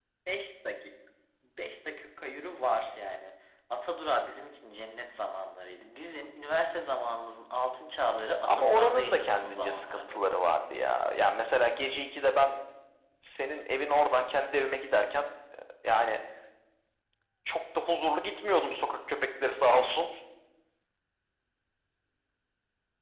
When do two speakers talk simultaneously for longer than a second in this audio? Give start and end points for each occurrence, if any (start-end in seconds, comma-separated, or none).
8.4-10.2